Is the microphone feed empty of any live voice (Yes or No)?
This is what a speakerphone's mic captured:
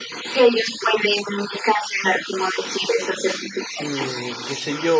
No